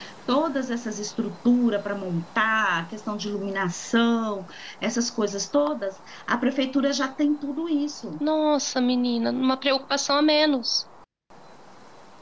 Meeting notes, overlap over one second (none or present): none